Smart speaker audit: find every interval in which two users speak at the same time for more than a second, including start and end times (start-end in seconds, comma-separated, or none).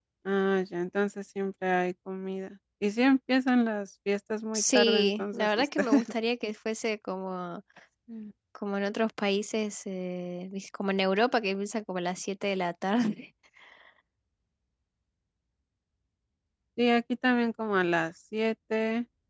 4.5-6.1